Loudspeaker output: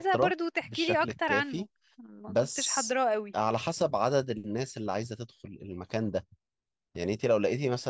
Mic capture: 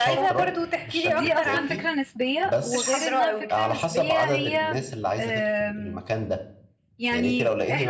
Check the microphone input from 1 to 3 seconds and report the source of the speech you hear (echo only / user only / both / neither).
both